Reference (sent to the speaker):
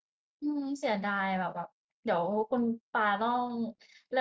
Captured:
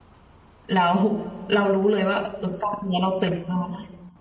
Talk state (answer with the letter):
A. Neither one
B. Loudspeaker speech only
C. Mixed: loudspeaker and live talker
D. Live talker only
D